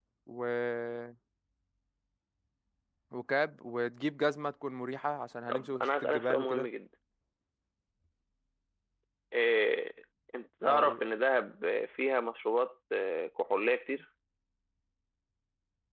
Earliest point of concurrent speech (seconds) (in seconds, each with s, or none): 5.5 s